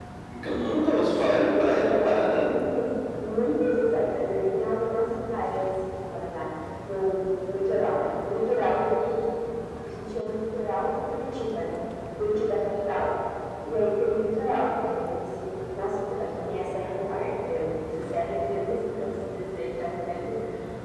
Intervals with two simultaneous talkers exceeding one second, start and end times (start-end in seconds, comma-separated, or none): 1.2-2.5